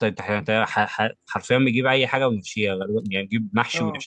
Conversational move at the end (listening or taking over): taking over